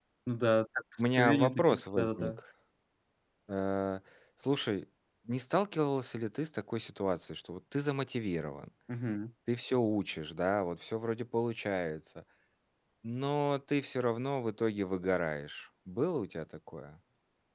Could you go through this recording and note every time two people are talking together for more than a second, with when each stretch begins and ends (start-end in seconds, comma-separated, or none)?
1.0-2.4